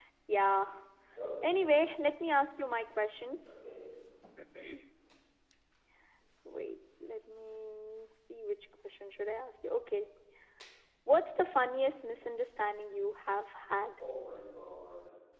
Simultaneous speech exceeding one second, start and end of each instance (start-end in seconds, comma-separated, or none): none